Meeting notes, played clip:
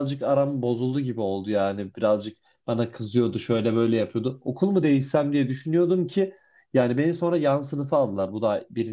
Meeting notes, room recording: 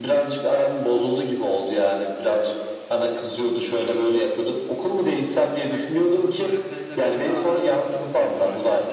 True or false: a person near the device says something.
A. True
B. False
A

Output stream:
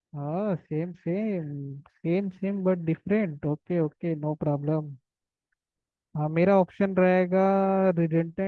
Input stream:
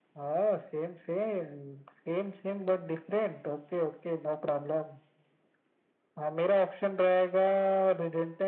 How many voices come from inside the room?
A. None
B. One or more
A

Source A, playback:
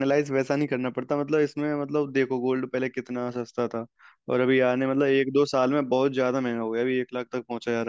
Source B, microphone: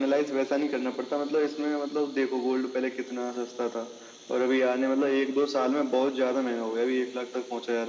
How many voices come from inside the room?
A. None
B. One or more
A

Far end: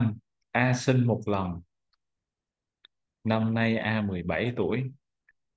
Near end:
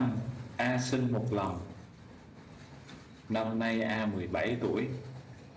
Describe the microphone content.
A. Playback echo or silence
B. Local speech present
A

